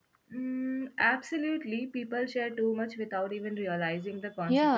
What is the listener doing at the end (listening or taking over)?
taking over